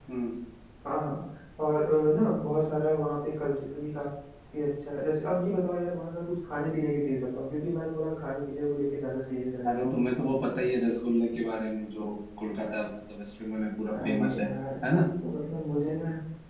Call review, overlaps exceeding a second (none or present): none